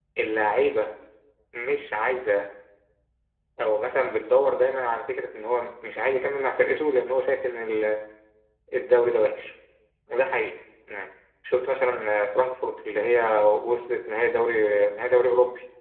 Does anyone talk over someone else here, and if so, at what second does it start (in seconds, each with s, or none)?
none